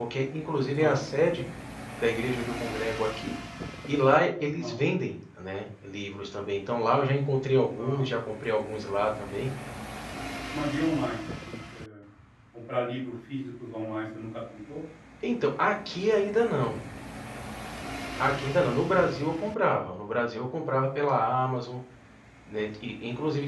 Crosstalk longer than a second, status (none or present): none